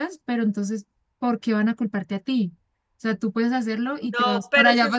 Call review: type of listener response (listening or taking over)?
taking over